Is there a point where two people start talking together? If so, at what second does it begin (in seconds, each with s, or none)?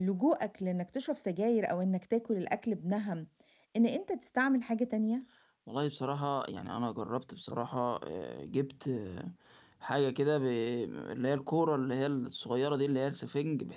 none